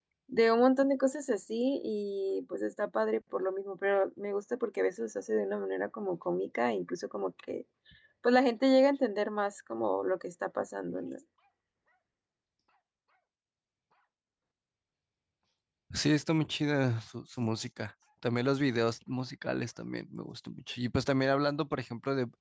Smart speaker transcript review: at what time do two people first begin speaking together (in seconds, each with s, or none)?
none